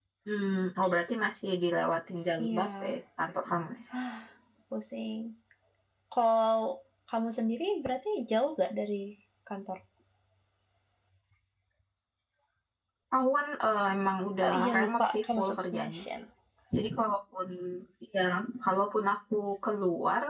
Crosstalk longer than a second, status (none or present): present